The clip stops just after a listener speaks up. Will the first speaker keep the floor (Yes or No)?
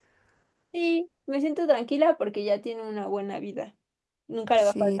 Yes